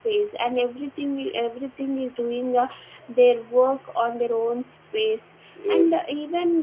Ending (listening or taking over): listening